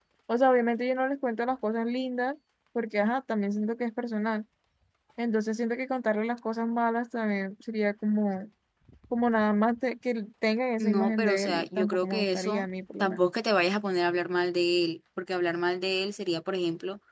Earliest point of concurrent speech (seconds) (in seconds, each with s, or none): 10.8 s